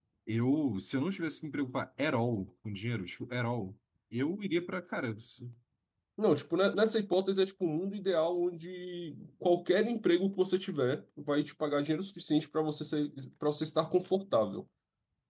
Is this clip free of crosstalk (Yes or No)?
Yes